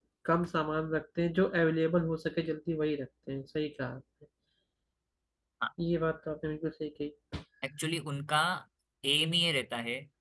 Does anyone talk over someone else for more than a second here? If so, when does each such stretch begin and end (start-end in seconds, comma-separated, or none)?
none